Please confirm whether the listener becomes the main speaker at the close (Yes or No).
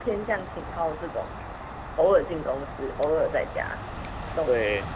Yes